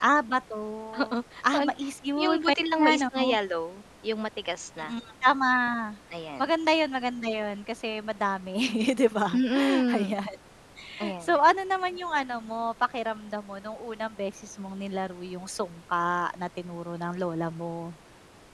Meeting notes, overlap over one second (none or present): present